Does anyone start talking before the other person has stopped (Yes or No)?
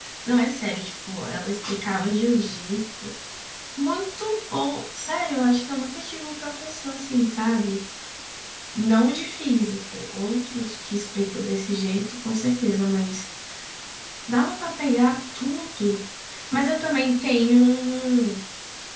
No